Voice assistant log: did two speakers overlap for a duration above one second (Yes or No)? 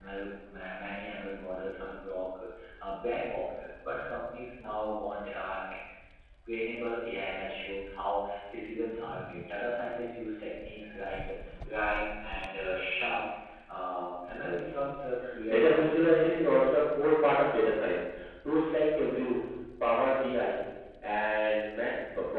Yes